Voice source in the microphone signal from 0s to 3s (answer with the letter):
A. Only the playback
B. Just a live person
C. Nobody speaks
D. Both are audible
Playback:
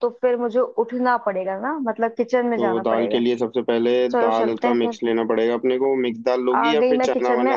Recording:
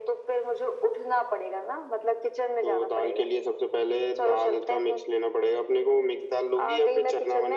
A